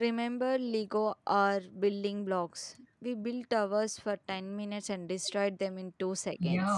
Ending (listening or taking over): taking over